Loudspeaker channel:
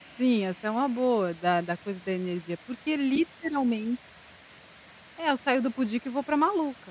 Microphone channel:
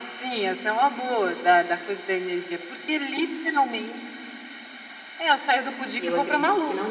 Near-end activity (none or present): present